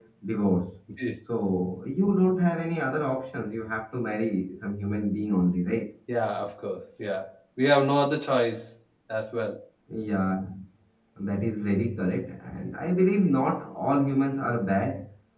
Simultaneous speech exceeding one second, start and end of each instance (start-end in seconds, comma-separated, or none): none